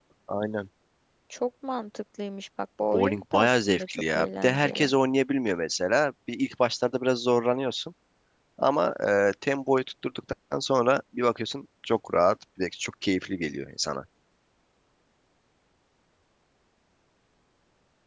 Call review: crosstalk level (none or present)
present